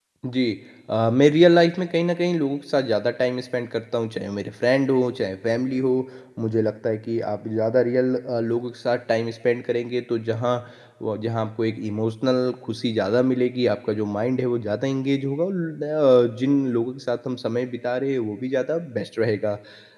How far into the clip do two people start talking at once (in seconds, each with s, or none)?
none